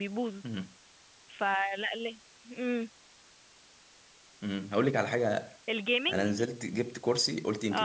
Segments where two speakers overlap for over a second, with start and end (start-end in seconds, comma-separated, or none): none